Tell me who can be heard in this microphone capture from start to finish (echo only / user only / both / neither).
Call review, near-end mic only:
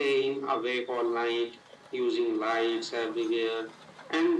echo only